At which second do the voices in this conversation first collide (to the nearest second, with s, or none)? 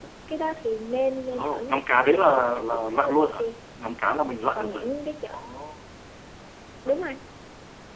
1 s